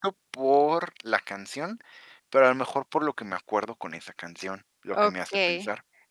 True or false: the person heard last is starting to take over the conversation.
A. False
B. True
B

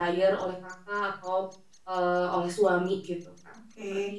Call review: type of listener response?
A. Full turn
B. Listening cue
A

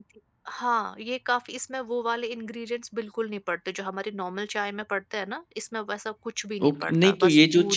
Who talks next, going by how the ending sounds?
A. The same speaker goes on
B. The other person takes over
B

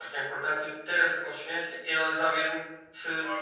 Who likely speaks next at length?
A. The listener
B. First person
B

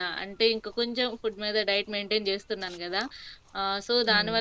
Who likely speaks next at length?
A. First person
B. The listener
A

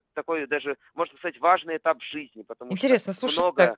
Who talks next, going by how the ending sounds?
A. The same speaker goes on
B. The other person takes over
B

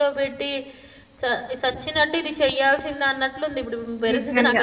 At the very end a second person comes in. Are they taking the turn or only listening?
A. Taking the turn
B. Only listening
A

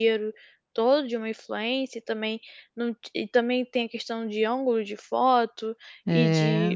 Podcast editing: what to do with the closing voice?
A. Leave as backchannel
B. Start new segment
A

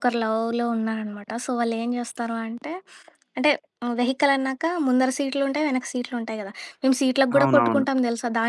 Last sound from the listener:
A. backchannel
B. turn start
A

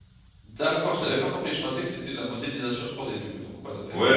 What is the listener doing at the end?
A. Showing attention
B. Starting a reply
B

